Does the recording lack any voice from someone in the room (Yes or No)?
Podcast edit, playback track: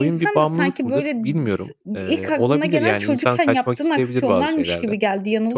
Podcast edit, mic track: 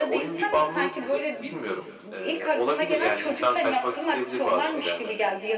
Yes